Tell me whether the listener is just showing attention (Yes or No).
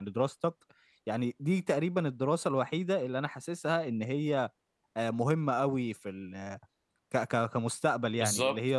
No